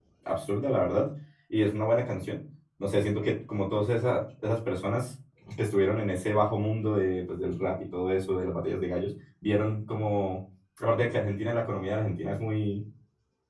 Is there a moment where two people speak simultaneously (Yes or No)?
No